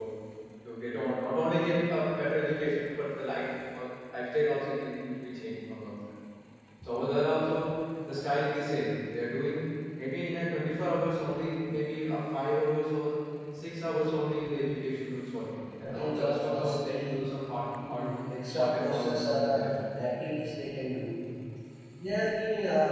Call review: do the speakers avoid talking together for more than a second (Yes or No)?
No